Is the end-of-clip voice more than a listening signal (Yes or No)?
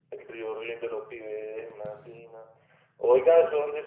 No